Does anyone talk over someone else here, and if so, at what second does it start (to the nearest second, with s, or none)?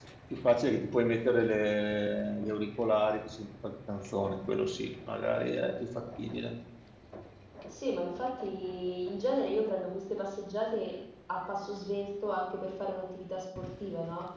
none